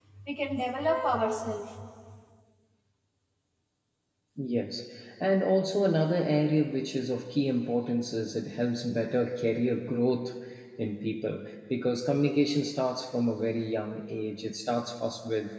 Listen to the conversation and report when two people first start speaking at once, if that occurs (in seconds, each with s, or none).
none